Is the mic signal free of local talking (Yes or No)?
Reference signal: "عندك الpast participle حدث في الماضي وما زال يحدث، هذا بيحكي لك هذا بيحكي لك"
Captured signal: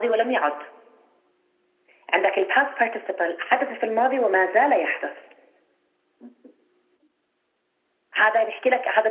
Yes